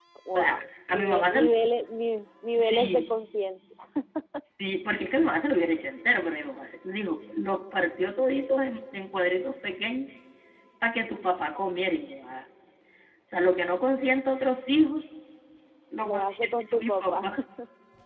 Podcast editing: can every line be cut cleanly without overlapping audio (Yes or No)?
No